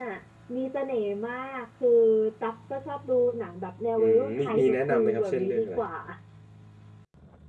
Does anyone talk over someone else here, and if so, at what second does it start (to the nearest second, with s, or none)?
4 s